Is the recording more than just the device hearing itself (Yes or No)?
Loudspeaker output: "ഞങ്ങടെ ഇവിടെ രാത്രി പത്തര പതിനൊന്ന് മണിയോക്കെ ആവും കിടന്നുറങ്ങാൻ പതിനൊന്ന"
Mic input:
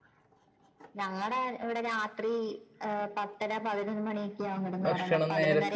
Yes